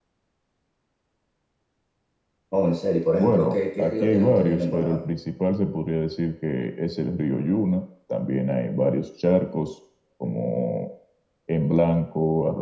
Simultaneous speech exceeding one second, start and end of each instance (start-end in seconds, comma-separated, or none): 3.2-5.0